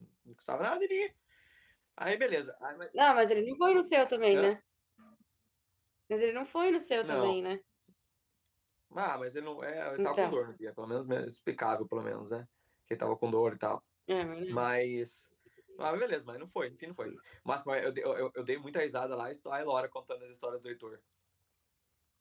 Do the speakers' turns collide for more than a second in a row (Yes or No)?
No